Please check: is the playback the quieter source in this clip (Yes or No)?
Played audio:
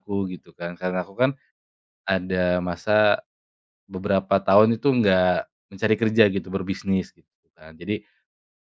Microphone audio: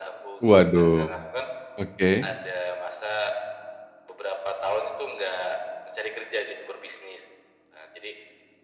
Yes